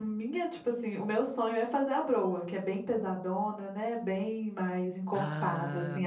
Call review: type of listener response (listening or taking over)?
taking over